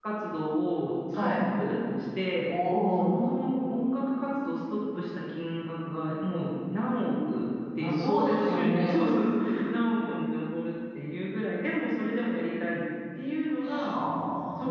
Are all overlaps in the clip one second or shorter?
No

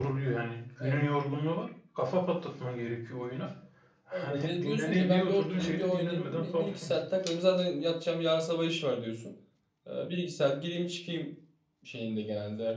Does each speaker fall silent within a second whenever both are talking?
No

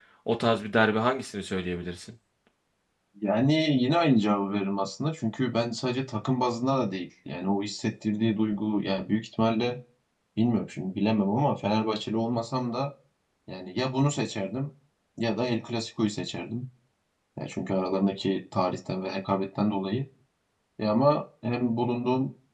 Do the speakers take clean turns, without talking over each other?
Yes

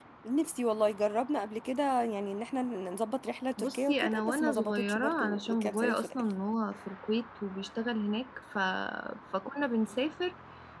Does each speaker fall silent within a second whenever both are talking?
No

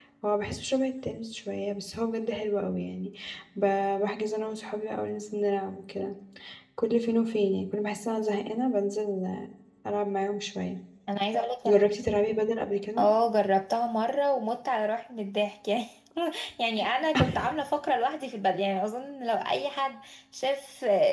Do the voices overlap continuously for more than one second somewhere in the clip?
No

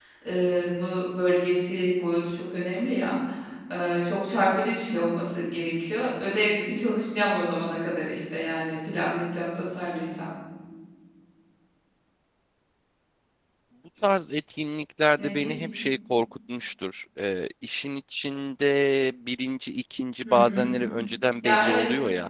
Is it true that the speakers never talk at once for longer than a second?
Yes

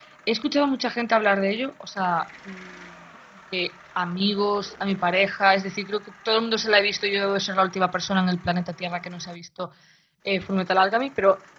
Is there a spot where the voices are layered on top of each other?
No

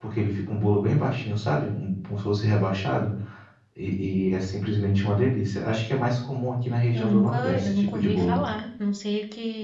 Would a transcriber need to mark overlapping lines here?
Yes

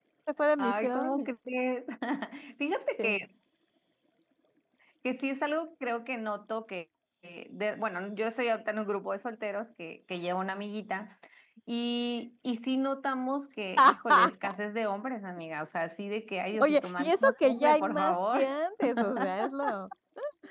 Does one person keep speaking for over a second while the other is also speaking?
Yes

